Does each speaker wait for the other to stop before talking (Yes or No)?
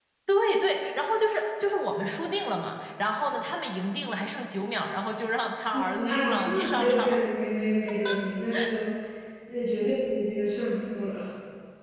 No